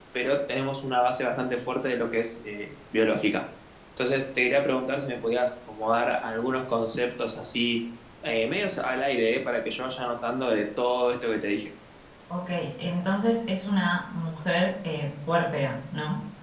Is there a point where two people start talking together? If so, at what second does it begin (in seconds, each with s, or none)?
none